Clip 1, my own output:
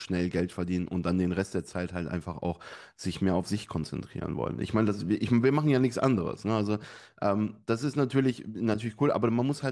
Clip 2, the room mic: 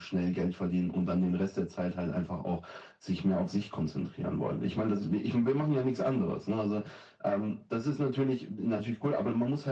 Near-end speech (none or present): none